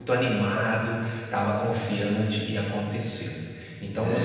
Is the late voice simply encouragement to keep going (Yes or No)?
Yes